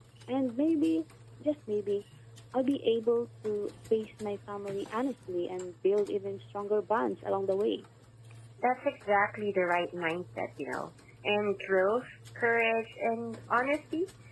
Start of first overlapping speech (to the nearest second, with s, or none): none